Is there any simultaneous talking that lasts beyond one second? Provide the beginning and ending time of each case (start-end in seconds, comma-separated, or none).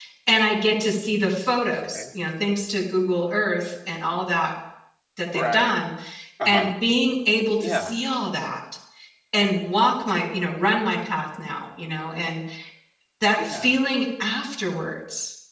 none